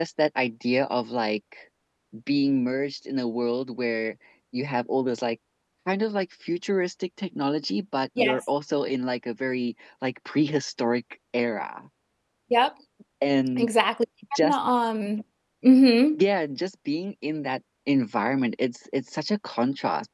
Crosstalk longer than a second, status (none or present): none